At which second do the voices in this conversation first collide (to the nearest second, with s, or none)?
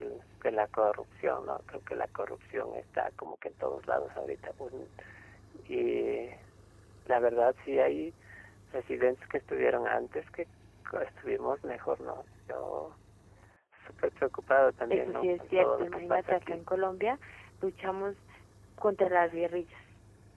15 s